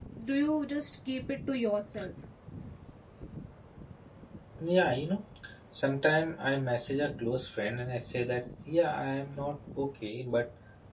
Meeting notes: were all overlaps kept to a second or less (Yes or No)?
Yes